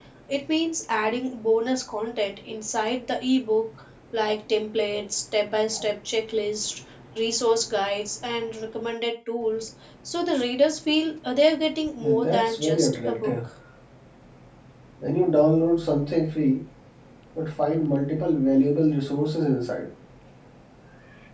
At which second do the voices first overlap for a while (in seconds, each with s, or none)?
12.0 s